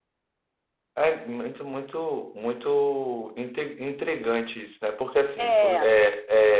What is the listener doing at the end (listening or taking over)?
listening